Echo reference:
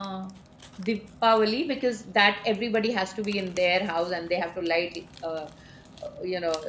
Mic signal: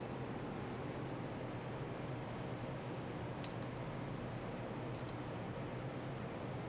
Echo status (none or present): none